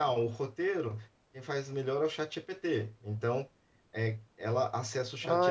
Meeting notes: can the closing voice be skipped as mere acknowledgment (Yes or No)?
No